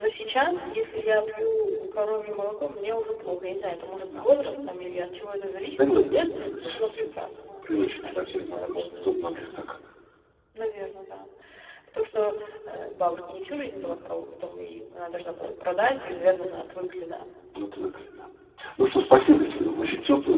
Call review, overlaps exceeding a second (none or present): present